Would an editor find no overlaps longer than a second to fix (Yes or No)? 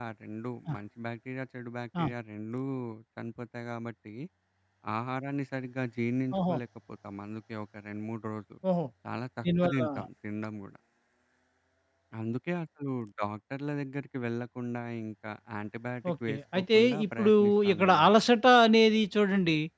No